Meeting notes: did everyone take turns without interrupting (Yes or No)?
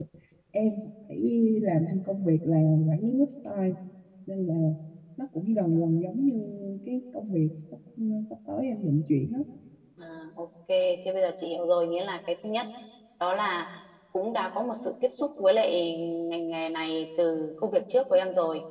Yes